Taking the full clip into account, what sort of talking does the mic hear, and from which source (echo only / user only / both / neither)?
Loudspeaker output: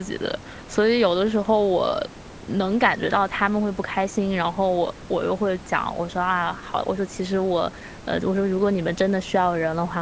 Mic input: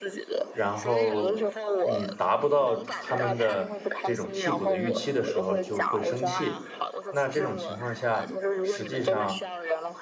both